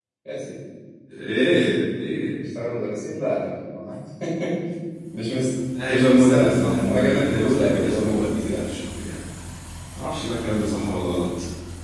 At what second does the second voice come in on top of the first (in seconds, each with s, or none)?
5.9 s